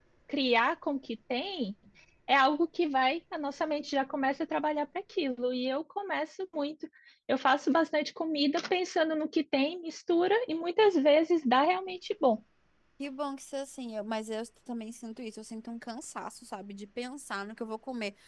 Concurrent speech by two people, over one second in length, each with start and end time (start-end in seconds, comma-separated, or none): none